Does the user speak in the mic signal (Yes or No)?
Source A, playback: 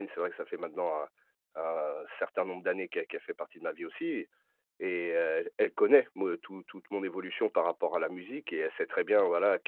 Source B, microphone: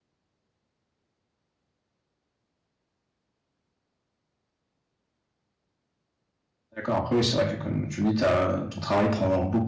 Yes